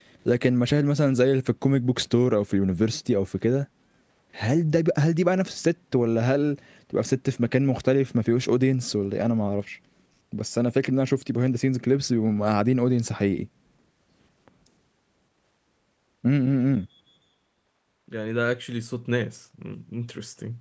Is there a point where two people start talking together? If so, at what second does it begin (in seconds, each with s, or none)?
none